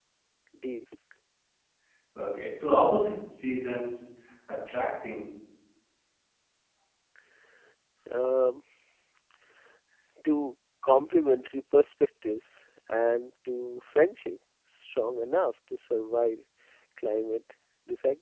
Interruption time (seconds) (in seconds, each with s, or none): none